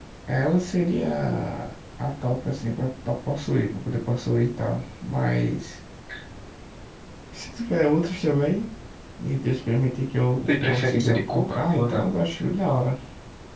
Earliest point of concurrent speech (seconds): 10.5 s

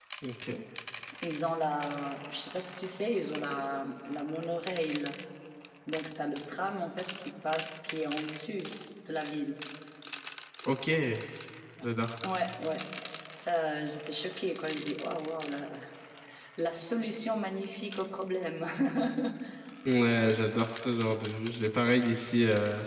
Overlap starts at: none

